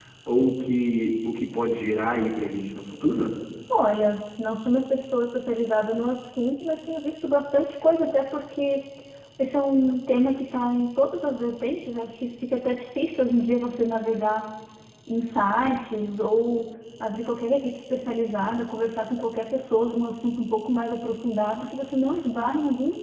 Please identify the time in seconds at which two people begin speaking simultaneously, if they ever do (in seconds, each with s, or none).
none